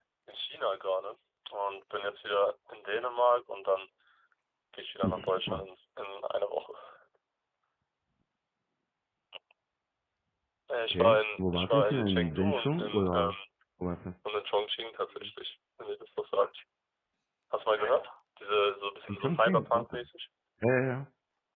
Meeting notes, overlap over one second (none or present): present